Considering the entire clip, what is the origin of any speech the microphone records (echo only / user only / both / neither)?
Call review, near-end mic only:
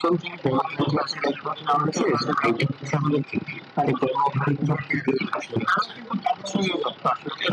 echo only